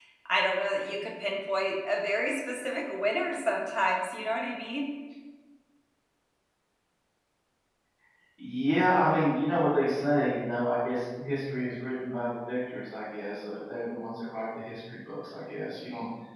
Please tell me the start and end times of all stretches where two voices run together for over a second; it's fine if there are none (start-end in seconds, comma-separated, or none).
none